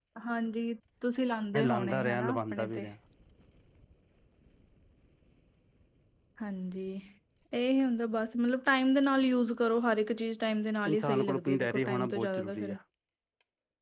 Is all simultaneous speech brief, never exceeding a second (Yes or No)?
No